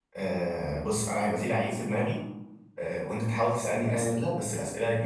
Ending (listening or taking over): listening